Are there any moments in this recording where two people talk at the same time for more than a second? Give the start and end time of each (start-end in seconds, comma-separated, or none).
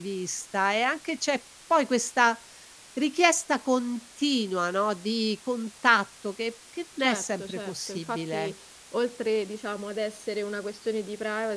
7.0-8.5